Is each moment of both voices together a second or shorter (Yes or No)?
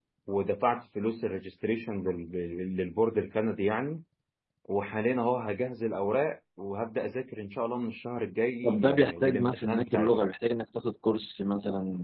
No